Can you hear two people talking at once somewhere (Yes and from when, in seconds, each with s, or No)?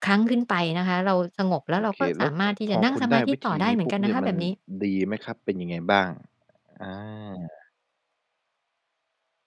Yes, from 2.0 s